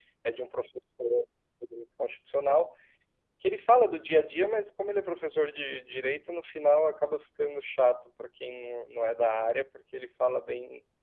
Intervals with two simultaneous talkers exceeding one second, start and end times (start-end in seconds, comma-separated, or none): none